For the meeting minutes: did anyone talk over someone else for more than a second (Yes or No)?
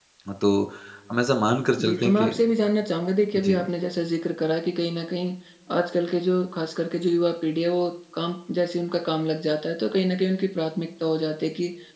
No